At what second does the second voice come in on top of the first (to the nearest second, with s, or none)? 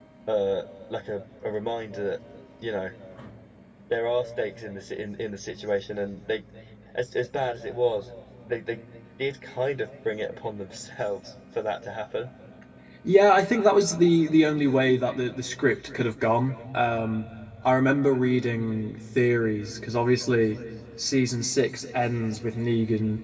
none